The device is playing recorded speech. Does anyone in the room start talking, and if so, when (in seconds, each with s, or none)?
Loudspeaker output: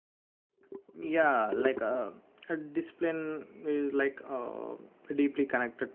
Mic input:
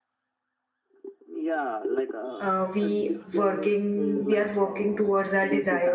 2.4 s